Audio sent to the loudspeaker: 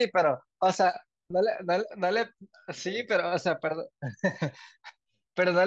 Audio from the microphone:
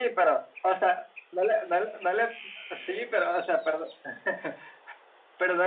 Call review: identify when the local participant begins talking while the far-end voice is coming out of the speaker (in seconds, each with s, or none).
none